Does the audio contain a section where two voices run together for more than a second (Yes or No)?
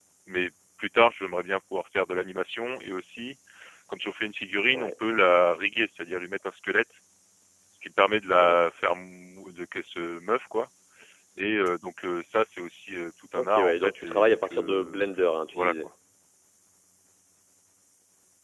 Yes